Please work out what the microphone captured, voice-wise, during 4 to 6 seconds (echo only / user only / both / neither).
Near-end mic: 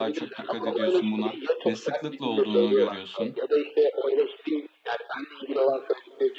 echo only